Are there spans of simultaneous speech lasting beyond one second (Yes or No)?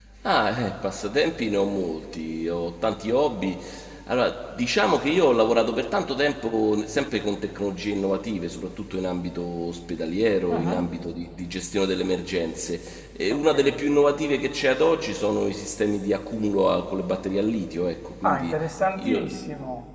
No